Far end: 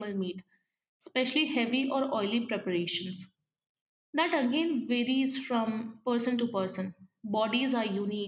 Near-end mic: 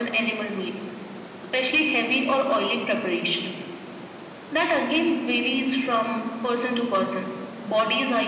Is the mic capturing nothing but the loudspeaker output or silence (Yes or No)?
Yes